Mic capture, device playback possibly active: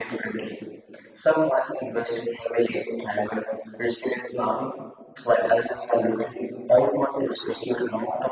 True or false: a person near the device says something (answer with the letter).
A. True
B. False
B